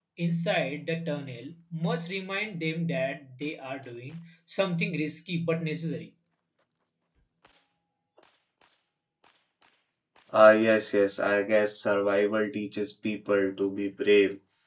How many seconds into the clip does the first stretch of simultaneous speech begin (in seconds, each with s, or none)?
none